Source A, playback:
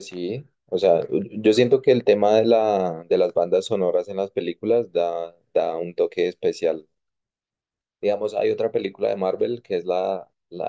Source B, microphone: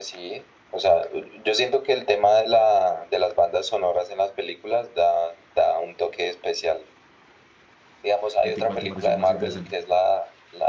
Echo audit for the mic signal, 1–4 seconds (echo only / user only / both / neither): echo only